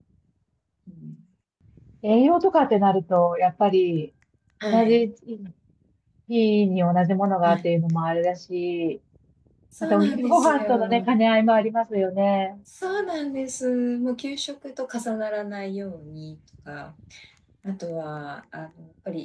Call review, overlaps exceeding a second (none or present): present